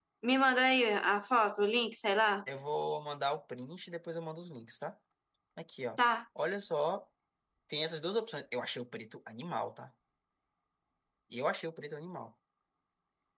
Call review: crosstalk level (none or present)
none